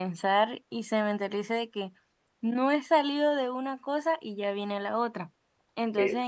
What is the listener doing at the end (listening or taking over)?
listening